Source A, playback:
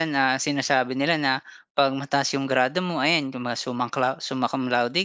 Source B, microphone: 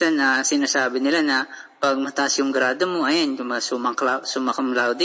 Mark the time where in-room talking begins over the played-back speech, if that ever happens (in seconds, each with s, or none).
none